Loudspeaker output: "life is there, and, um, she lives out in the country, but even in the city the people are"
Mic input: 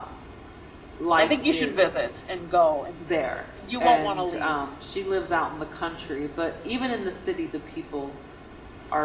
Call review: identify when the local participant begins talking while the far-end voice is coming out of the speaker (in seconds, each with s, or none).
1.2 s